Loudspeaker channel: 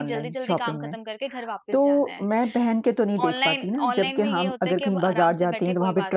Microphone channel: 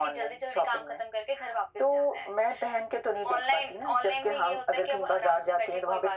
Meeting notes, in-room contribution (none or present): none